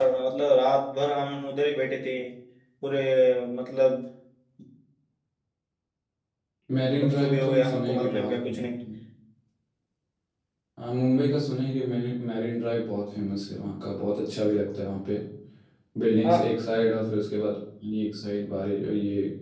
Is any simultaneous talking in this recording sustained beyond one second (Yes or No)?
Yes